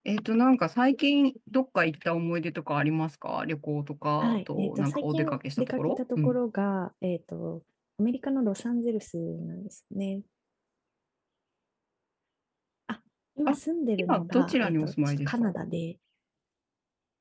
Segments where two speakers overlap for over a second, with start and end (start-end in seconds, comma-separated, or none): 4.2-6.4, 14.0-15.5